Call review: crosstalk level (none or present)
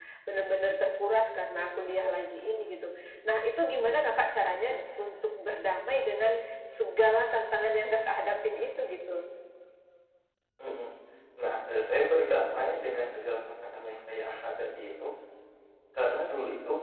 none